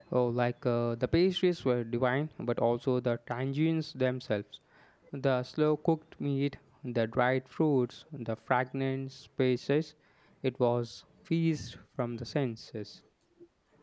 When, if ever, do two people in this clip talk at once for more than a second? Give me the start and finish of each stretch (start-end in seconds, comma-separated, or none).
none